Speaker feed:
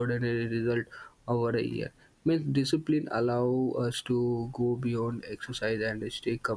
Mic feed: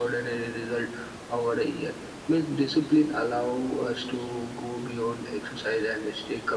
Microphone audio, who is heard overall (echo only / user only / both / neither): echo only